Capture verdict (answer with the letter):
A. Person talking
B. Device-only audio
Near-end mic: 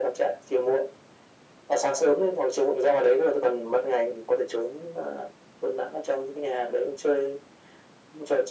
B